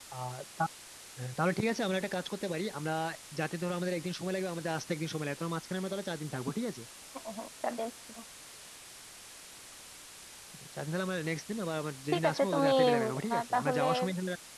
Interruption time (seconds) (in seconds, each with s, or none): 12.1 s